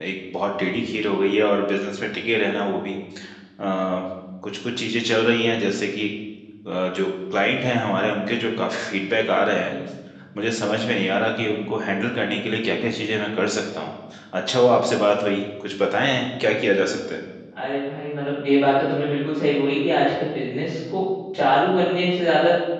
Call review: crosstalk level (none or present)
none